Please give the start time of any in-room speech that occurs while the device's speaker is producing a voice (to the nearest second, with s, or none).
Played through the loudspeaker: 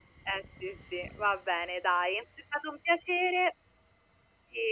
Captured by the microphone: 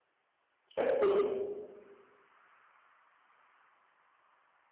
1 s